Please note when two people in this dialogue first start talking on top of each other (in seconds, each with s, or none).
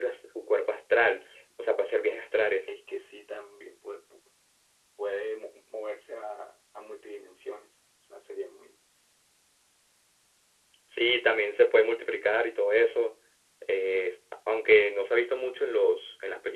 none